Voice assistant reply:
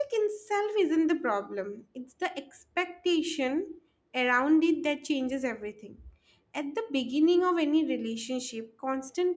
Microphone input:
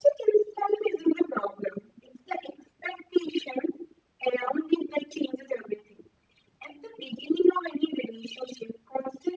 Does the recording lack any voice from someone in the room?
Yes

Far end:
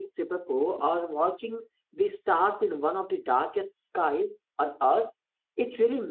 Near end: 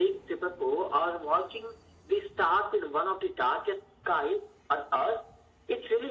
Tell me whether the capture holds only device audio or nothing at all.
Yes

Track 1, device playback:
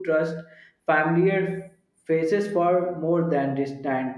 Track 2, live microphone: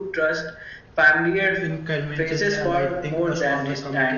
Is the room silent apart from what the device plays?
No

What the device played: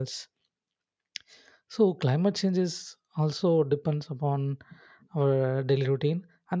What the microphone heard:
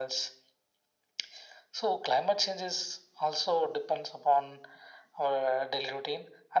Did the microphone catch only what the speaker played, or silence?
Yes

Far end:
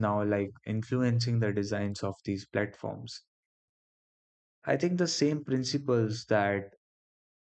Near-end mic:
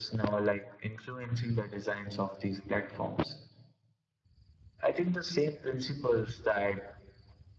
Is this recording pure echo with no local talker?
Yes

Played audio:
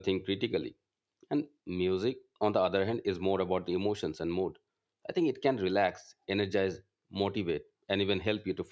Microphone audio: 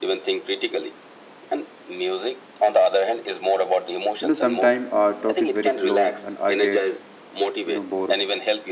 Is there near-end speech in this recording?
Yes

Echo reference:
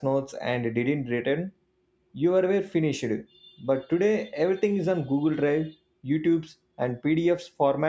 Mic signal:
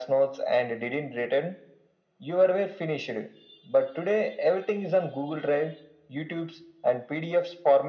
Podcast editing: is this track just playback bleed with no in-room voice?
Yes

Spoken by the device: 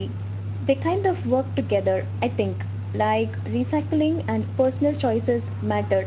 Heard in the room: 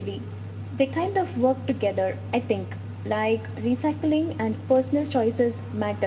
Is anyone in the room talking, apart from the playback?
No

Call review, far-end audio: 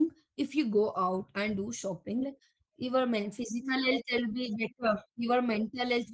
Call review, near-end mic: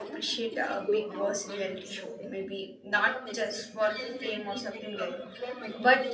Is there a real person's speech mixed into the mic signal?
Yes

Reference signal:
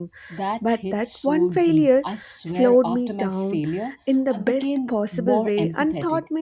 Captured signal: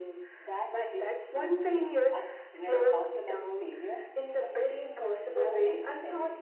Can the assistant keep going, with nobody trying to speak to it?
Yes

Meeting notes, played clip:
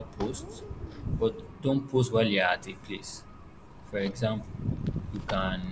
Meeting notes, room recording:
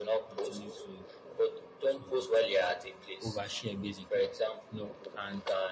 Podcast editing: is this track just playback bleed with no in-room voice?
No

